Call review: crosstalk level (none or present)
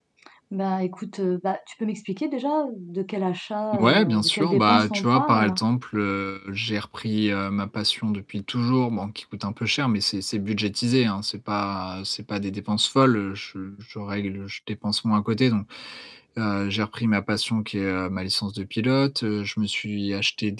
present